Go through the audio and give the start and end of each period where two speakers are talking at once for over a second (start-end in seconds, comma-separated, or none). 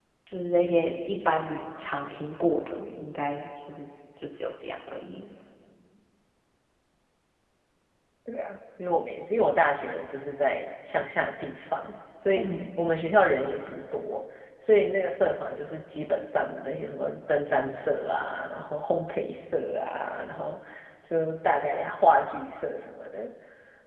none